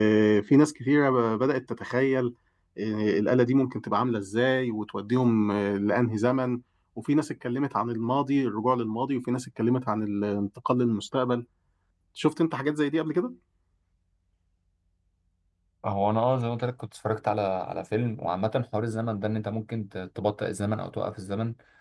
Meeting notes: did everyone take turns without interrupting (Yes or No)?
Yes